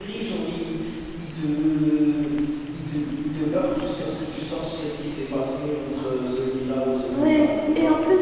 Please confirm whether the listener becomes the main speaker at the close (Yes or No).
Yes